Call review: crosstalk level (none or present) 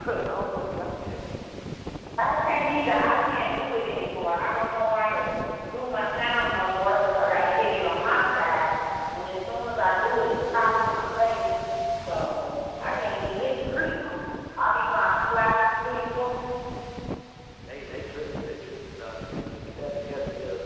present